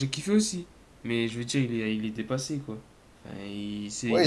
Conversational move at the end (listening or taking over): taking over